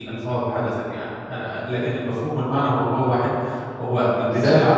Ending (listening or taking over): listening